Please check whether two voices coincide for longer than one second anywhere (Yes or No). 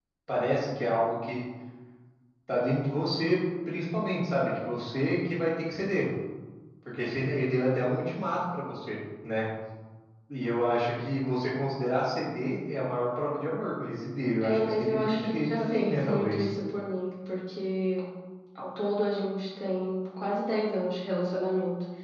Yes